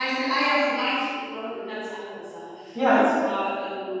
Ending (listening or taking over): listening